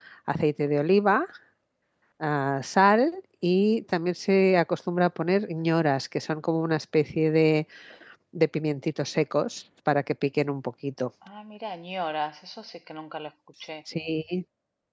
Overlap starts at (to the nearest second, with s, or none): none